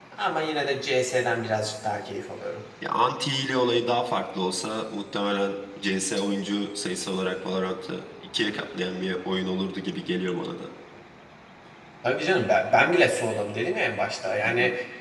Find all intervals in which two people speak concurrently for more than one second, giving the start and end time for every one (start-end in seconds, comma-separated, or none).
none